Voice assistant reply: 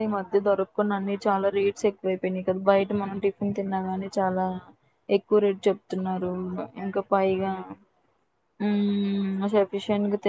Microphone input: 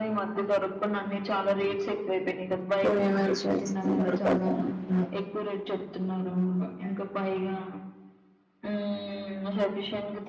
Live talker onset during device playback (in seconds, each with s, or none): 2.8 s